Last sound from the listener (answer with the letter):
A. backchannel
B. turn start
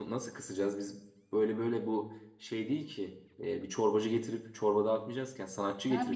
B